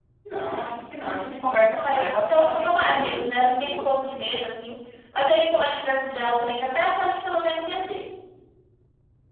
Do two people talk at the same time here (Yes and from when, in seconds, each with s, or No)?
Yes, from 1.8 s